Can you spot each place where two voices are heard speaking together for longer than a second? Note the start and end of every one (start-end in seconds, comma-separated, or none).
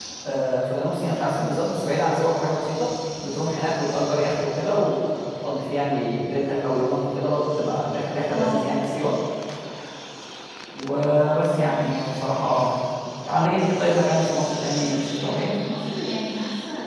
none